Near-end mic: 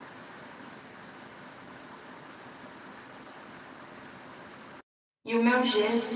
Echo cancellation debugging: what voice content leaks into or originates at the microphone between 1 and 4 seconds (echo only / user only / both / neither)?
neither